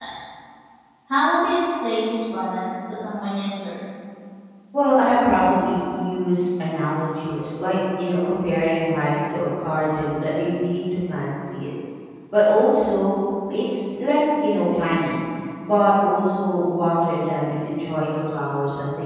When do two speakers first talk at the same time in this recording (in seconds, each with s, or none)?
none